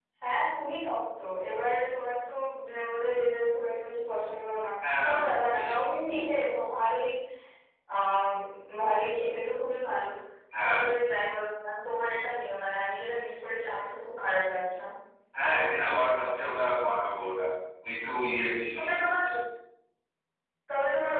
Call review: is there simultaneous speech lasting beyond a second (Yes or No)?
No